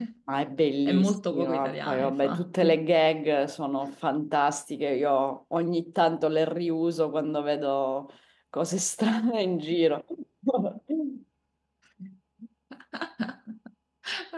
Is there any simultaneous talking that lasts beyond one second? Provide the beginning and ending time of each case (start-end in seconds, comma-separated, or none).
0.9-2.8